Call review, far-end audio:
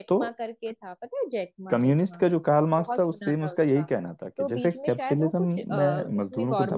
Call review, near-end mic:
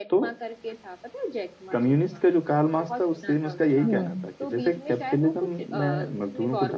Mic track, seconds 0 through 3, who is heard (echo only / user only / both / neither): echo only